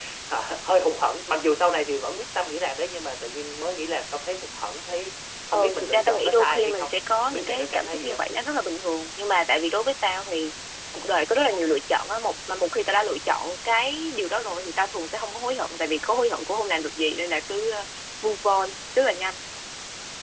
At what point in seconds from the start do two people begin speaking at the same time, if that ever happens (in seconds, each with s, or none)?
5.5 s